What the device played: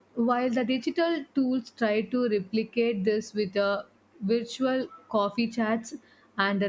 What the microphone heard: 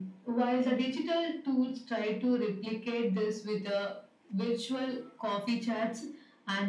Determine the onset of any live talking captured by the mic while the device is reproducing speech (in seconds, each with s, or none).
none